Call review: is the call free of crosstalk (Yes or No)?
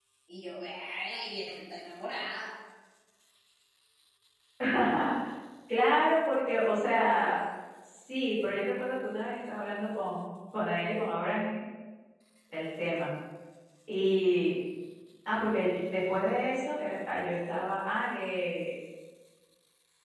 Yes